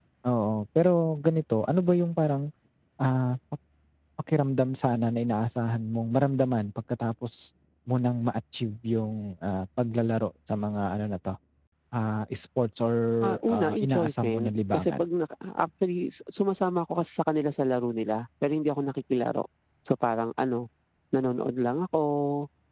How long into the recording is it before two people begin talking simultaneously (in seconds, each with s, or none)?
13.4 s